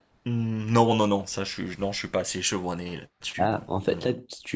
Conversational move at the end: taking over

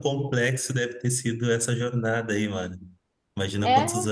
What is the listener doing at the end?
listening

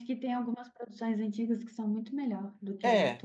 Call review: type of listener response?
taking over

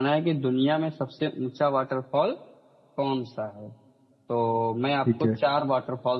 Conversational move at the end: listening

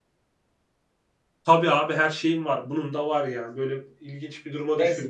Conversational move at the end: taking over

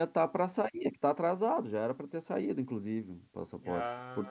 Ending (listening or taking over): taking over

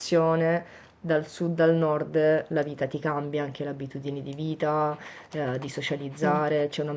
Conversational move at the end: listening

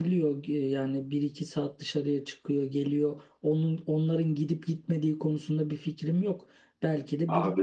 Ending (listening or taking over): listening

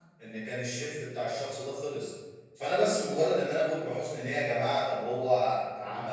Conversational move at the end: listening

